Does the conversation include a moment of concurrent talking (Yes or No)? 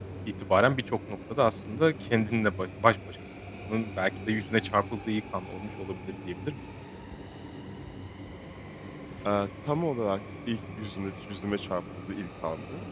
No